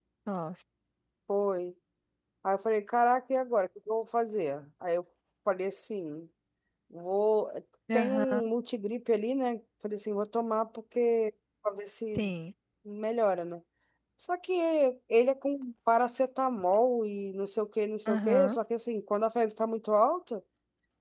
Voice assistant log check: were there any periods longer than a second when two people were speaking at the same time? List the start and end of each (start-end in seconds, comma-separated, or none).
none